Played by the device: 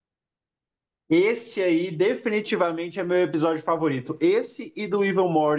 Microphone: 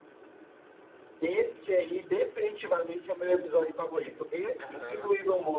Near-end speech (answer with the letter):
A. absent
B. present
B